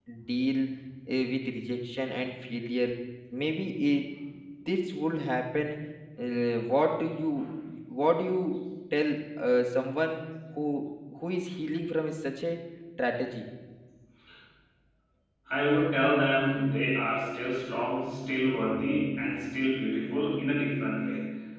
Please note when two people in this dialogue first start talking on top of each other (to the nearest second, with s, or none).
none